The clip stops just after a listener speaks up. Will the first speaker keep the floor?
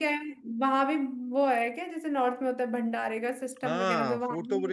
No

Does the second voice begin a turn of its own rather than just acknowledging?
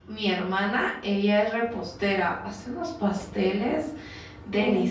No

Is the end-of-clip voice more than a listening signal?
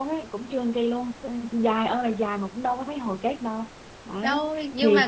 Yes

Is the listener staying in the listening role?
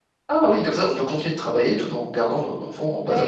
No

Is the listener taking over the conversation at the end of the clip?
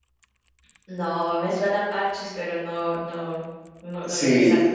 Yes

